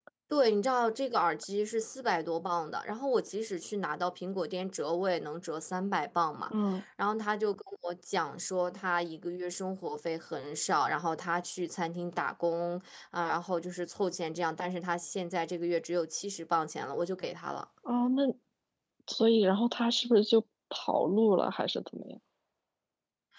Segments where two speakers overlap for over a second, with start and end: none

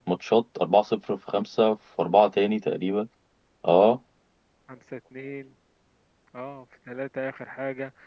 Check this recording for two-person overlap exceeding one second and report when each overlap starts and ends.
none

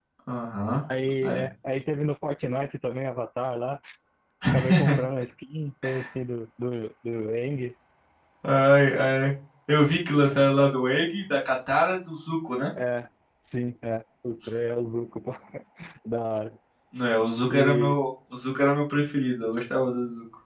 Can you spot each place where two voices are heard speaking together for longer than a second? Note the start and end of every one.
none

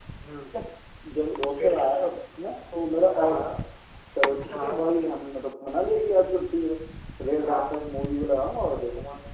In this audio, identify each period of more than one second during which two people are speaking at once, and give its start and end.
none

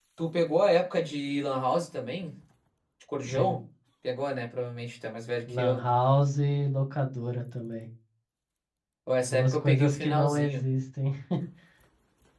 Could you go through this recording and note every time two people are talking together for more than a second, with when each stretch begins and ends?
9.2-10.7

